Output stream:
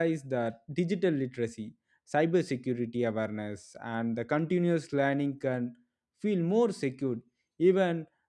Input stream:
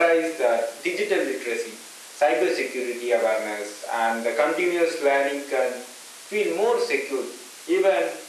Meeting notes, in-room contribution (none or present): none